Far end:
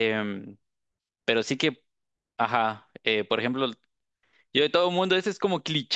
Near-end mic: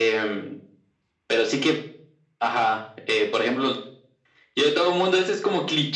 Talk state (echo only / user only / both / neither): echo only